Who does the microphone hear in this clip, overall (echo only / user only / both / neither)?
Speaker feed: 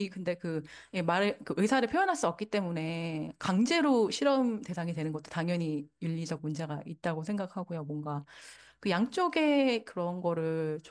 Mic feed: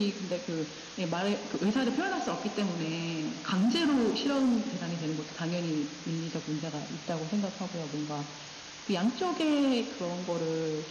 echo only